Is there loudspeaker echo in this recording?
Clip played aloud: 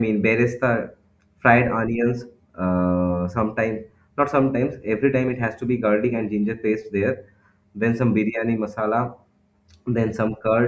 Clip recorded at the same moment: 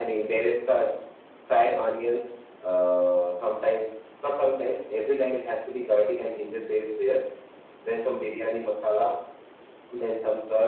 Yes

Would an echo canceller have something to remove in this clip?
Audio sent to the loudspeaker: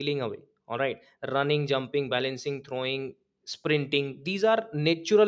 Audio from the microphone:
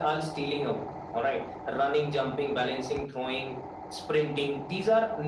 Yes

